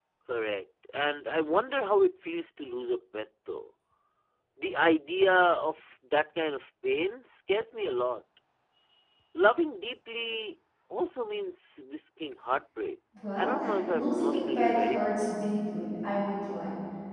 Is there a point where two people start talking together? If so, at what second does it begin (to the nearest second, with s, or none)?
13 s